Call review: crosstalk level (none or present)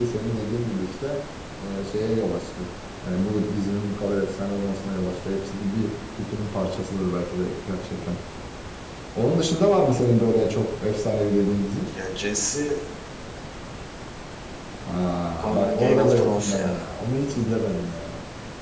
present